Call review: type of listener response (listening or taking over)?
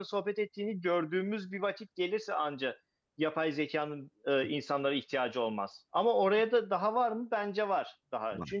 listening